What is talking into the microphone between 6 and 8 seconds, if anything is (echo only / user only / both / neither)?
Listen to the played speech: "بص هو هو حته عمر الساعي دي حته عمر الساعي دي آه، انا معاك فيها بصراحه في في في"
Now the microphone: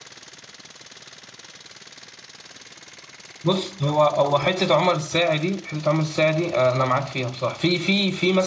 echo only